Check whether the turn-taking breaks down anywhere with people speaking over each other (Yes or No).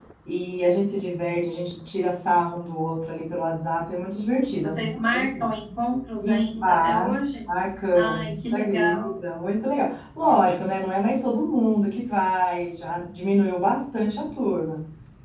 Yes